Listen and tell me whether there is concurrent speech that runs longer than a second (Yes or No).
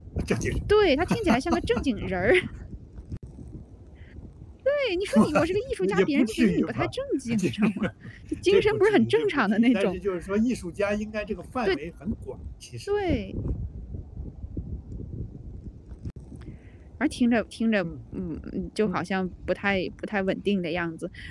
Yes